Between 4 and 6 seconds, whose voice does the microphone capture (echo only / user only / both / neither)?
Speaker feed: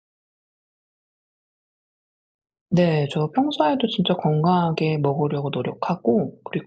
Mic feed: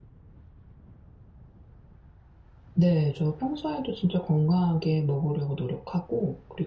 echo only